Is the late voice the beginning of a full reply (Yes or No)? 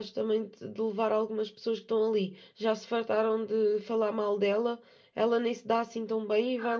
Yes